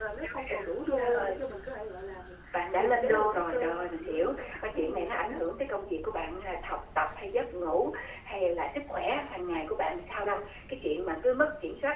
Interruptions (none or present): present